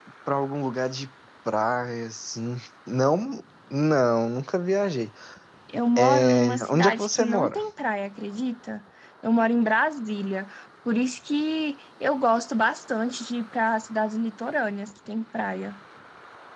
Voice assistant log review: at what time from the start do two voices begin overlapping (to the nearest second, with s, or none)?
6 s